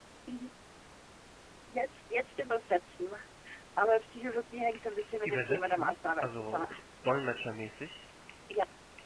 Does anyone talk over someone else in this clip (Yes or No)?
Yes